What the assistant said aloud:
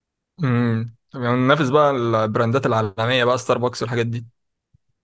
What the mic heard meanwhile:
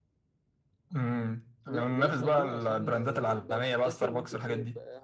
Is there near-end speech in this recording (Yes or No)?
Yes